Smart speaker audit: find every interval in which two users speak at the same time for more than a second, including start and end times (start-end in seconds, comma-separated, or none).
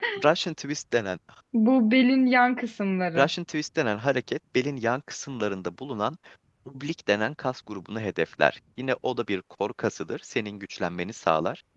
none